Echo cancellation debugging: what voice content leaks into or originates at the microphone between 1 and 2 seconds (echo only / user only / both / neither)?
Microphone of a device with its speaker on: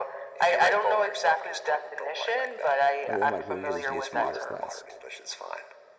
echo only